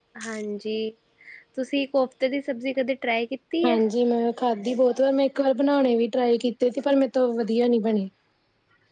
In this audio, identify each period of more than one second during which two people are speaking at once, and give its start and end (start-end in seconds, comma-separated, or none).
none